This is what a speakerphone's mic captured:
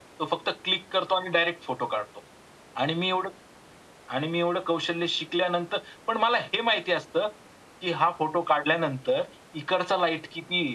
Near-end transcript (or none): none